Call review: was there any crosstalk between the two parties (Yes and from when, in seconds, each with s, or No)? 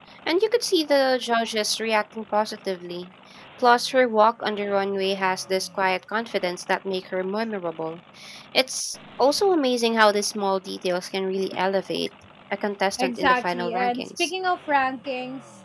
Yes, from 12.9 s